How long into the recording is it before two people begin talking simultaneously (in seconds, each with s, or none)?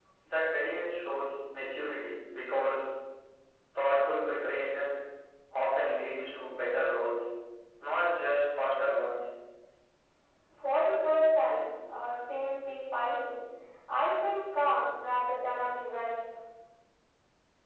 none